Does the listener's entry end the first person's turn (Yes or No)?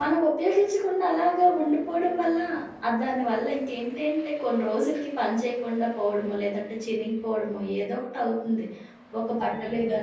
No